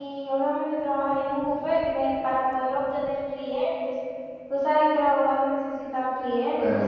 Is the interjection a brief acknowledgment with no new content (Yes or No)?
No